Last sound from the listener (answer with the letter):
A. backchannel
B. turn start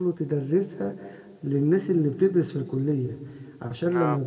A